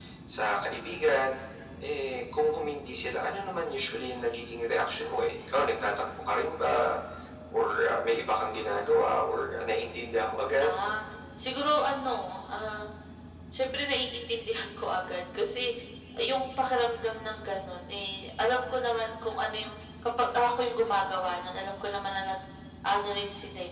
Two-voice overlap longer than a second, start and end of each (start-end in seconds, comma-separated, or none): none